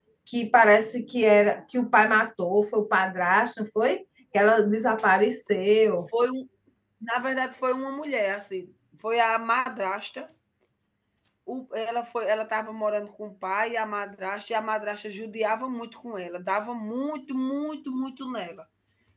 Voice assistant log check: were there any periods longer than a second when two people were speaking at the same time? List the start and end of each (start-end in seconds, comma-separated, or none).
none